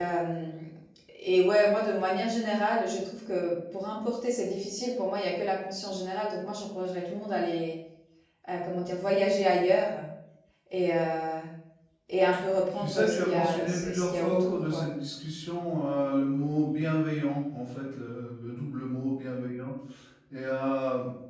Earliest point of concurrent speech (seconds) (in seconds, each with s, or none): 12.7 s